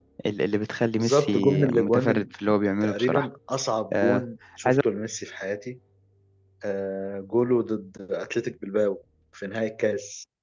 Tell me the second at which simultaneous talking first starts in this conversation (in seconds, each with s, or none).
1.0 s